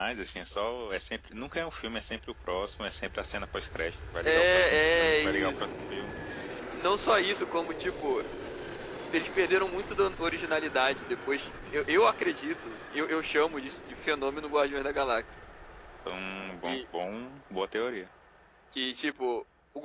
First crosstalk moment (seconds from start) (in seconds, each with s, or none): 4.2 s